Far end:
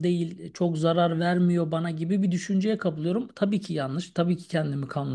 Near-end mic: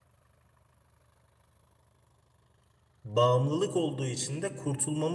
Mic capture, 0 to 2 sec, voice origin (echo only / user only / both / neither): neither